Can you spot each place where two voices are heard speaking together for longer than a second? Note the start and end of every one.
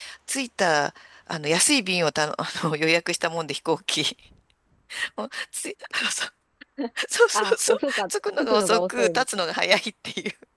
7.3-9.2

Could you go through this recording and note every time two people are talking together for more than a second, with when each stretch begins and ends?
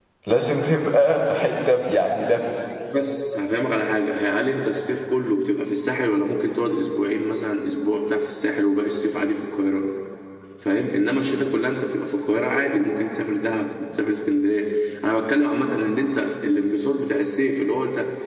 none

